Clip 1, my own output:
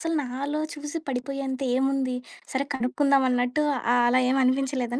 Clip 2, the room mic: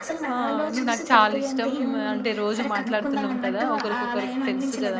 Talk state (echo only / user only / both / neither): both